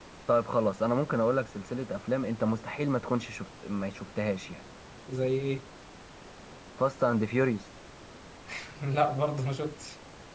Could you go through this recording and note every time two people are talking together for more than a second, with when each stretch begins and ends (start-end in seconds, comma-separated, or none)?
none